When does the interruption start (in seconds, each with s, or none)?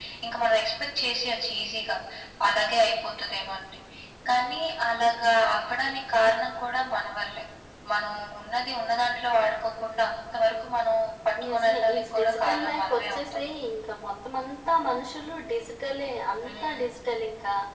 11.4 s